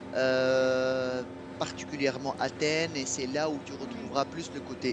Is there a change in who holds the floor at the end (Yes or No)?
No